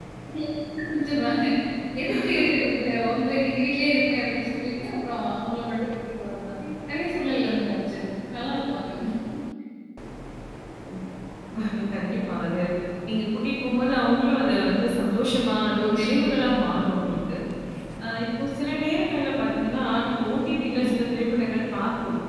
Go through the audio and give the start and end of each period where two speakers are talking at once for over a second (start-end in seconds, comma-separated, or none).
none